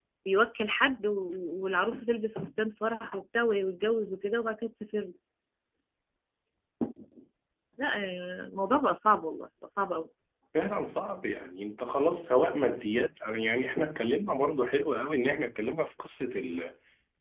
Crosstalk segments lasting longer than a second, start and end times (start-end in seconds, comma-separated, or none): none